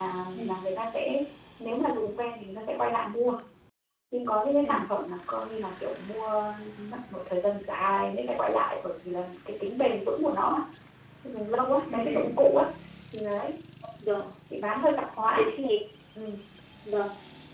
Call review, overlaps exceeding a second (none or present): none